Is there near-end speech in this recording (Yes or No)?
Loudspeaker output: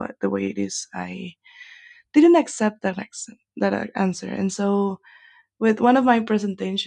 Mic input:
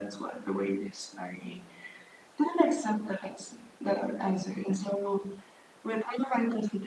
No